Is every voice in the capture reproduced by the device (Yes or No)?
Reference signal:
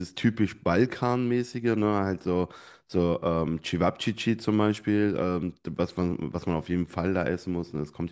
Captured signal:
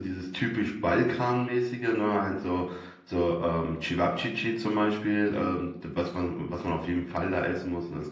Yes